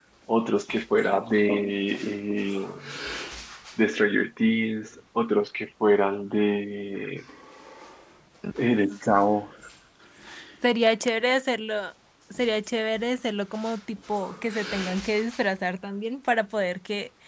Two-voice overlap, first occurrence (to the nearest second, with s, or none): none